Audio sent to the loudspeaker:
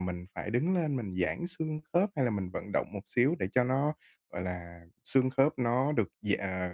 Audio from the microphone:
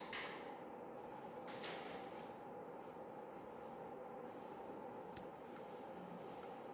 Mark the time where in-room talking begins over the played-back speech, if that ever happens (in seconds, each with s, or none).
none